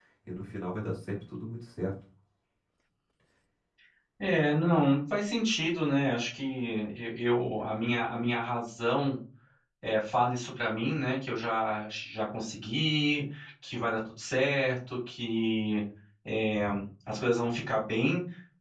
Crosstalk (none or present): none